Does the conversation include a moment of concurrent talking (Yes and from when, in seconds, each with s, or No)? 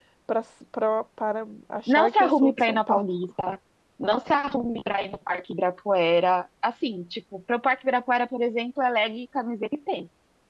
Yes, from 1.9 s